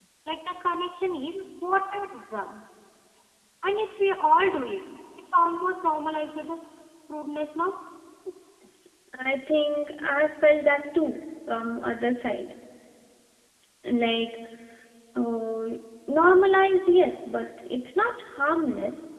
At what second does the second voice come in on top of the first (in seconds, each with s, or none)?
none